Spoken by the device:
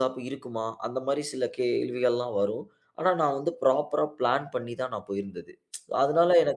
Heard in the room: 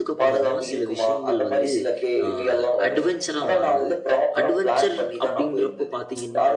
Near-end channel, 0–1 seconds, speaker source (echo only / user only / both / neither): both